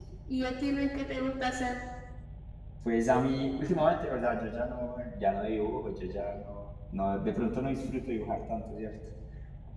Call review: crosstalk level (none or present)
none